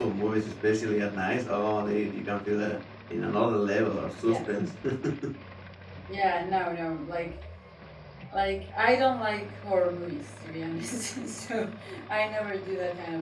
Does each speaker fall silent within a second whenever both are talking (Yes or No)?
Yes